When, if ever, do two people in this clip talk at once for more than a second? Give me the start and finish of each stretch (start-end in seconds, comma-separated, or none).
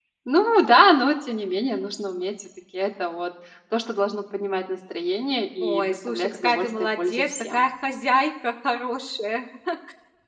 5.6-7.7